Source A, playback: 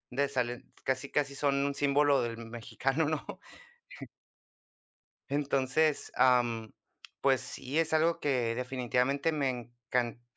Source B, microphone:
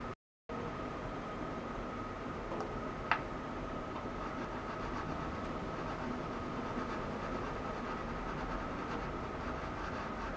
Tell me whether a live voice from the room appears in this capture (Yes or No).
No